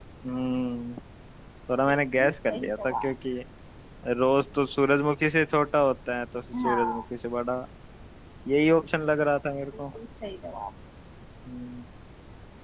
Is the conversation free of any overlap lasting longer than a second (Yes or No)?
No